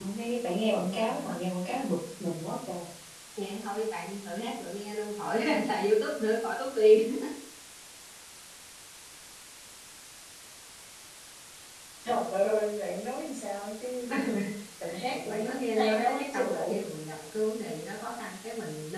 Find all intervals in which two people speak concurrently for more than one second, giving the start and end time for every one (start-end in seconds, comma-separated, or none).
15.1-16.8